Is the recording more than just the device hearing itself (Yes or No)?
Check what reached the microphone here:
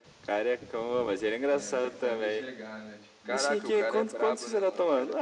Yes